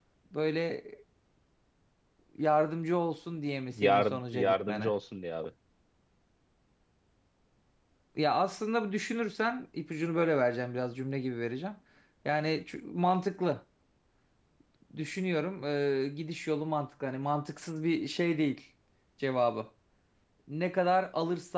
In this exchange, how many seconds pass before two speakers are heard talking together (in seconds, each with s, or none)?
3.7 s